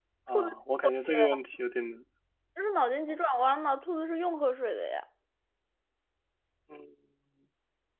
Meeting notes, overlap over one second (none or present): none